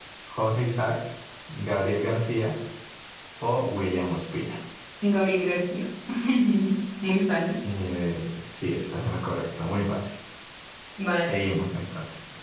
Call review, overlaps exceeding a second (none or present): none